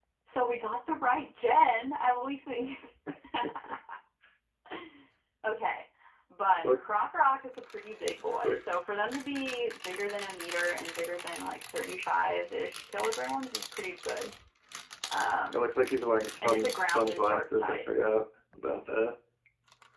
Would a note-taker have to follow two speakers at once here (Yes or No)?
Yes